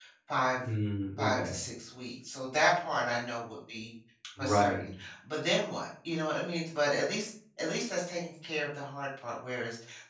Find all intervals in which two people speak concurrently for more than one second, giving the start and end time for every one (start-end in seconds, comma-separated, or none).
none